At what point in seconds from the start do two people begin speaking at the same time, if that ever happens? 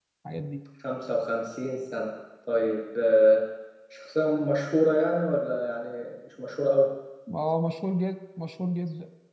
none

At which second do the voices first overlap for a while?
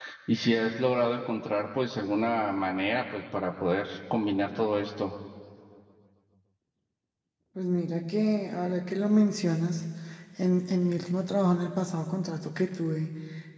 none

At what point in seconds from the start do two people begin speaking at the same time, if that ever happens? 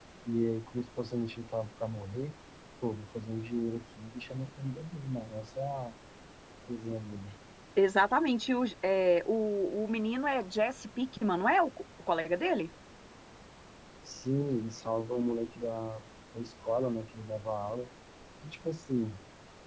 none

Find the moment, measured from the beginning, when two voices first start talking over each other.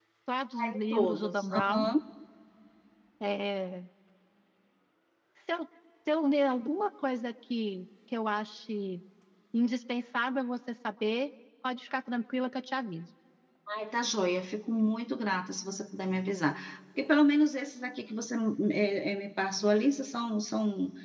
0.6 s

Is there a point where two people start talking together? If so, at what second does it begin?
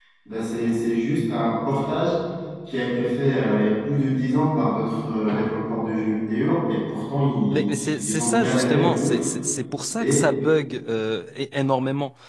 7.5 s

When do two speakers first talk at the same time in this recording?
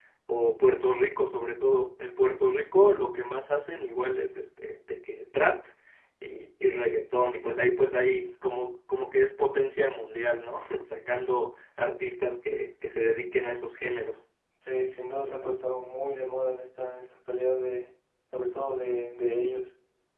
none

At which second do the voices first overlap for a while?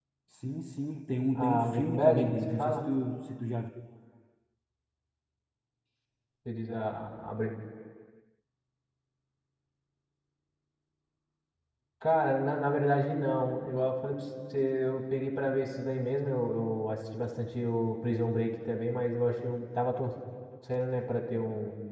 1.3 s

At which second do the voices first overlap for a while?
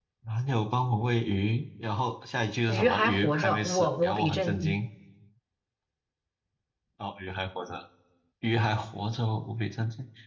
2.7 s

